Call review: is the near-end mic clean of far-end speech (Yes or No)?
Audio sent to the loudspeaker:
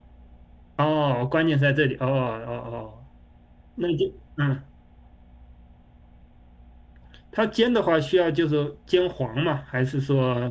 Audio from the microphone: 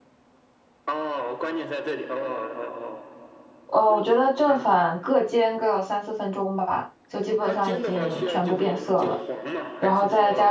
No